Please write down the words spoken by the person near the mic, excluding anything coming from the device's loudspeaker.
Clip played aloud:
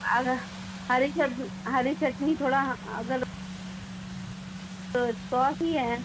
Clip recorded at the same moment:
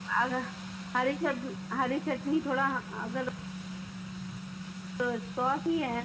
none

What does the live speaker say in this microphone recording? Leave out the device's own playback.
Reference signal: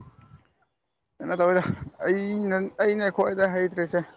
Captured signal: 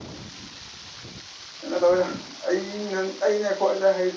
none

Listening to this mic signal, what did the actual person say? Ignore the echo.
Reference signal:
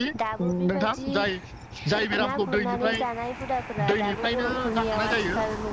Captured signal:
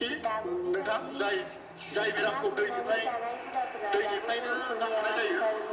none

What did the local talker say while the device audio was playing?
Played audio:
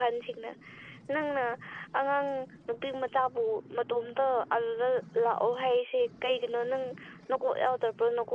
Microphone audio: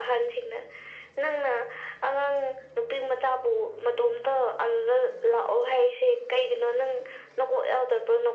none

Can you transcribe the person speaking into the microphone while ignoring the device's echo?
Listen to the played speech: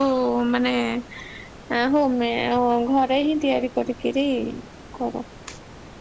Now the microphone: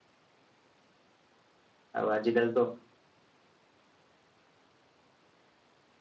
ଆଉ ଆଜି କାଲି ତ

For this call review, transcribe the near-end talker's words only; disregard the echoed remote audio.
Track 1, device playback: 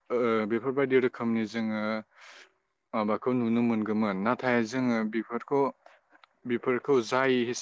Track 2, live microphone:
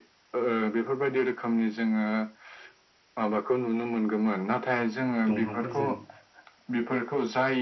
दंफांफोरजों

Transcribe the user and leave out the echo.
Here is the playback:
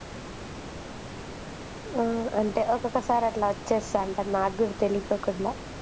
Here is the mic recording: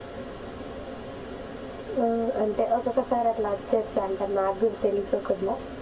none

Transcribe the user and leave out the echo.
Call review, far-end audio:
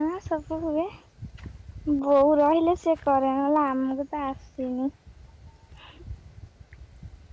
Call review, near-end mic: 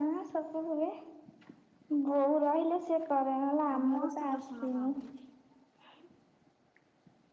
ସମସ୍ତେ ଦର୍ଶନ କରନ୍ତି।

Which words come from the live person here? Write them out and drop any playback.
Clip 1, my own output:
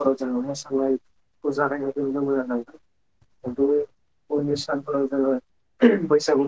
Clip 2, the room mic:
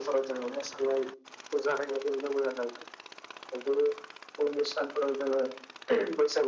none

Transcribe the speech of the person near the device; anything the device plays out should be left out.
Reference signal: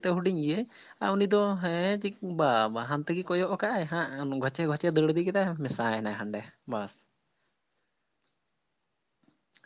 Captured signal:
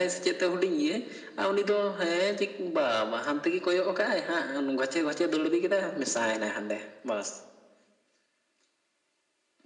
none

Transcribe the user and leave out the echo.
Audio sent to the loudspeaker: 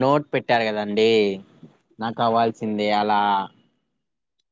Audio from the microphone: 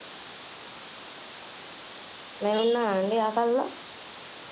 మేము ఉన్నా అండి ఆ కళలో

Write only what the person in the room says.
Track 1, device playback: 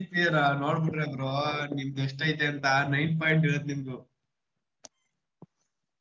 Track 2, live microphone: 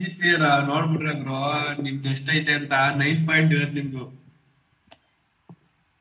none

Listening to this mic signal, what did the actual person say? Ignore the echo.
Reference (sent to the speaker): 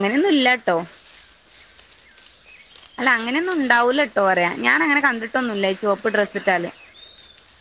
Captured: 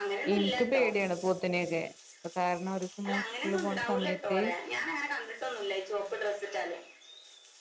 ഇൻക്ക് പേടിയാണ് പോത്തിനെയൊക്കെ. ഇപ്പൊ കാരണം ഒരൂസം ഞാൻ സ്കൂളില് പോണ സമയത്ത്.

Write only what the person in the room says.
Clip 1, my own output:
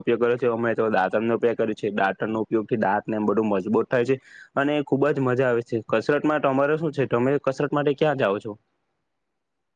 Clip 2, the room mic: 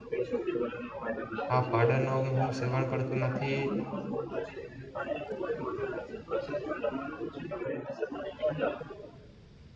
આ પાડર નો હું સેવન કરતો નથી

